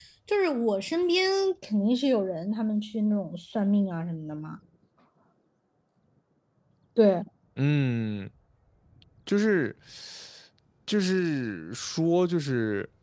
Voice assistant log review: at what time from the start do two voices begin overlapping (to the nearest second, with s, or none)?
none